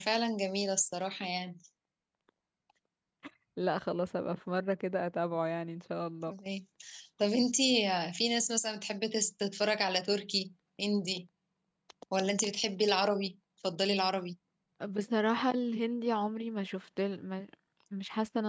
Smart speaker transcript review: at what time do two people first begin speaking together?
none

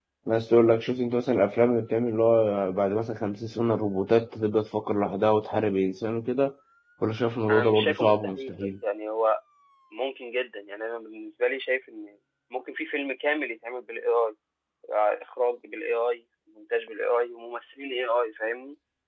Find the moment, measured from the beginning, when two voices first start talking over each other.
7.5 s

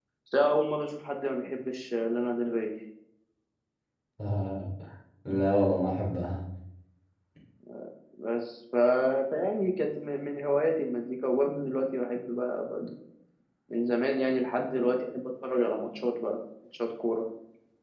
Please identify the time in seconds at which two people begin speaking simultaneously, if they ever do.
none

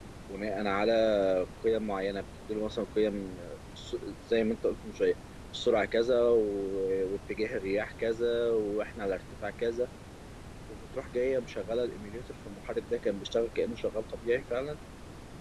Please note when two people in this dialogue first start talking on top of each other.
none

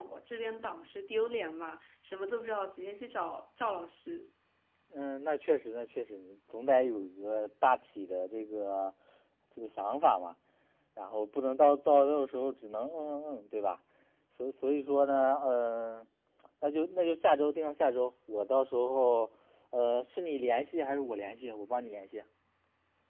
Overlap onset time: none

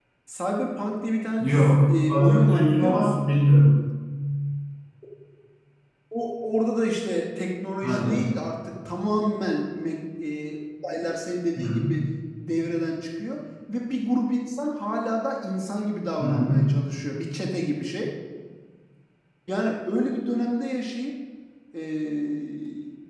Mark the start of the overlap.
1.4 s

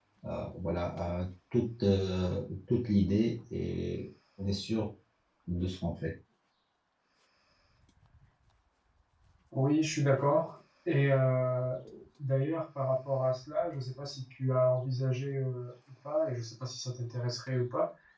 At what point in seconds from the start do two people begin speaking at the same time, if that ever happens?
none

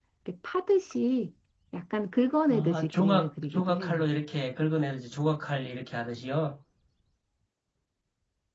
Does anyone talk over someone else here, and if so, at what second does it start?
2.5 s

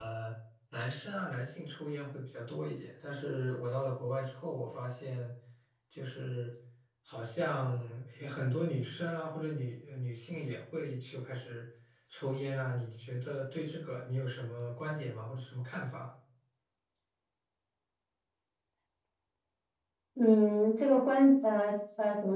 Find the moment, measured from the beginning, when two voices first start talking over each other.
none

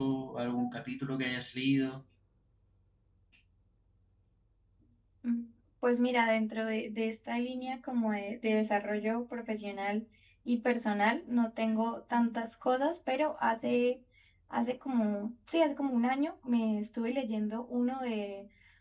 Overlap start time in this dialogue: none

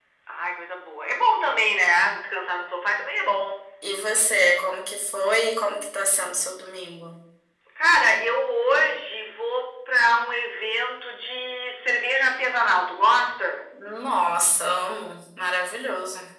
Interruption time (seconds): none

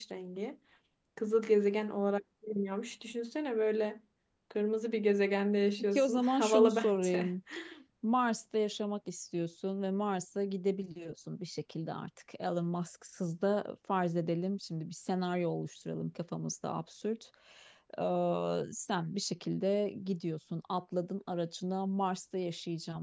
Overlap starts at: 5.8 s

